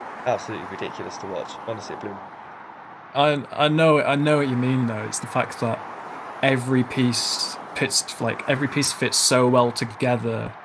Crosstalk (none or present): none